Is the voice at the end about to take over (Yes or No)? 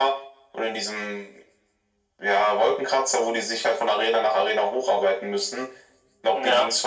No